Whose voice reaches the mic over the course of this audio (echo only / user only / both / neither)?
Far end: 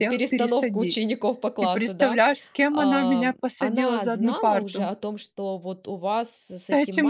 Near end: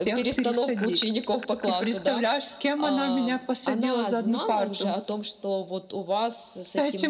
echo only